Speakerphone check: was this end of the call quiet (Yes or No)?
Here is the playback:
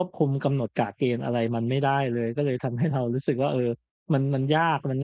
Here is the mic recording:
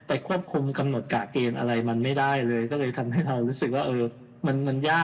Yes